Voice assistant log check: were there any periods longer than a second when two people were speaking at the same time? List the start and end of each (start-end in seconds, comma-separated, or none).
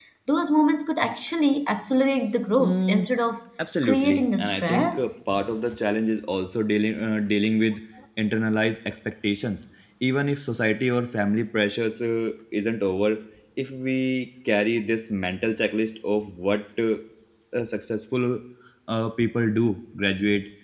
3.8-5.1